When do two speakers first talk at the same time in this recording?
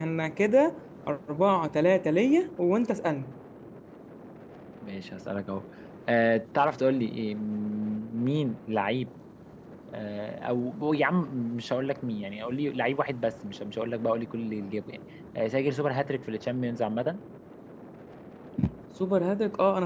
none

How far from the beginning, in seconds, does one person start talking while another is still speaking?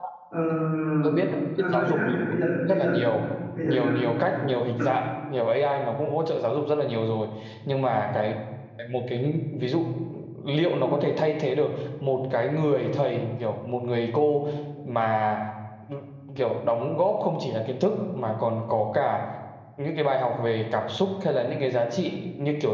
1.6 s

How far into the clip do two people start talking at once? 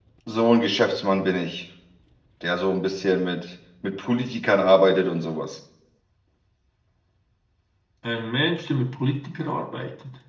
none

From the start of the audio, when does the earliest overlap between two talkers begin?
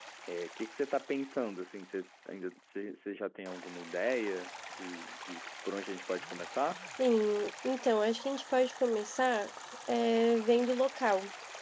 none

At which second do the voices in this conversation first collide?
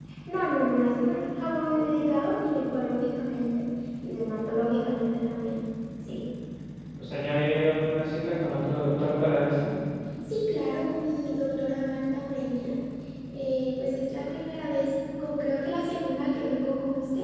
none

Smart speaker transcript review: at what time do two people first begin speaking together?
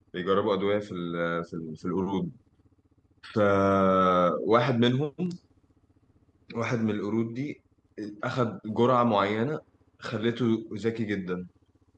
none

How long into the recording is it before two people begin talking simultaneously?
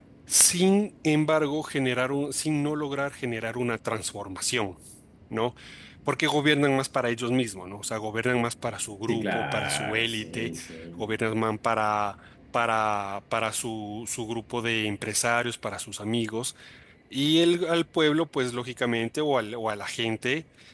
9.0 s

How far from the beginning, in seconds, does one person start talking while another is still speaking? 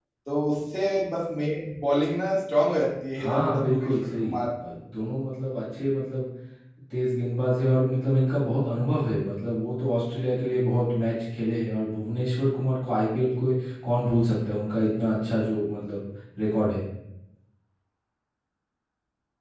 3.2 s

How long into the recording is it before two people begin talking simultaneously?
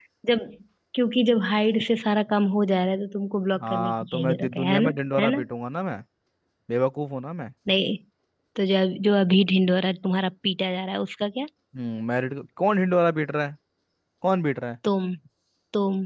3.6 s

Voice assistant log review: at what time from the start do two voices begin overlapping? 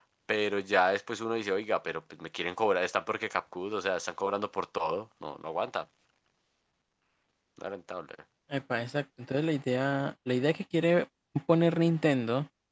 none

